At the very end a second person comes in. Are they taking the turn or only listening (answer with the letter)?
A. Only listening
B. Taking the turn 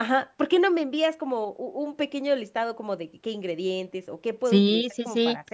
B